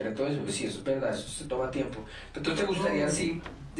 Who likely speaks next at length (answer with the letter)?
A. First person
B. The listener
A